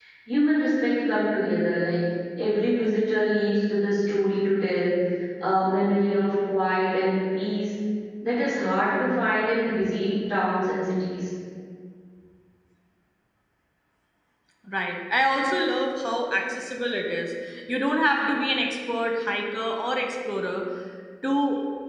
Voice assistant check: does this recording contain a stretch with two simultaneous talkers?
No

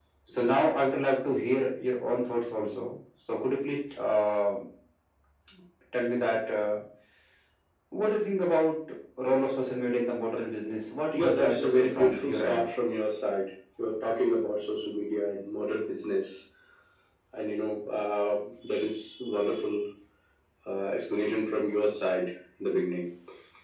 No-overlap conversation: No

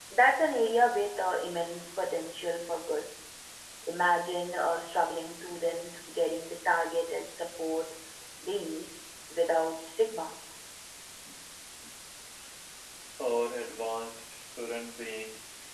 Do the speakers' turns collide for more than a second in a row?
No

